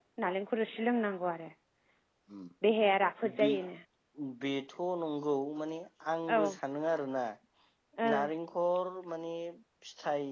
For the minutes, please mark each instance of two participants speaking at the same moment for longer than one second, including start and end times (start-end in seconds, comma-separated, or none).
none